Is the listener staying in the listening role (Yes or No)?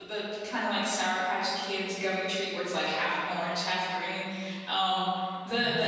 Yes